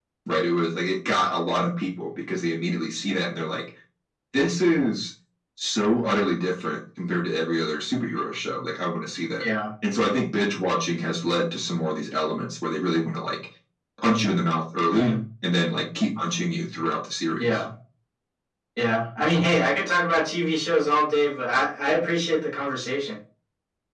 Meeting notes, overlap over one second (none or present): none